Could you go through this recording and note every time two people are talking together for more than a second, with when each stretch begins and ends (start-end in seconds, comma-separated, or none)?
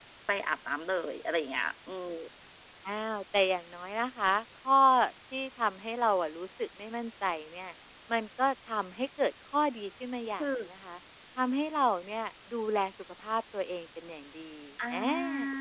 none